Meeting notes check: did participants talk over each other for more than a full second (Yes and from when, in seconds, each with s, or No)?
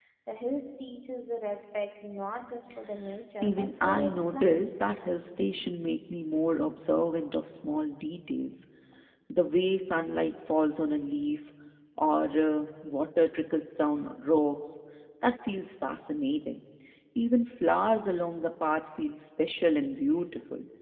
Yes, from 3.4 s